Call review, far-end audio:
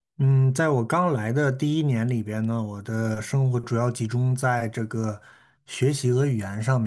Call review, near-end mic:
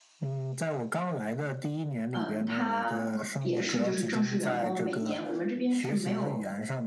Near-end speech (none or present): present